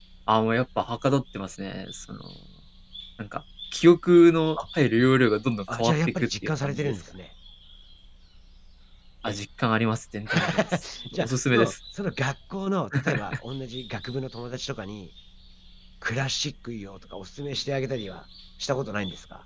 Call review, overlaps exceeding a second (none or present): present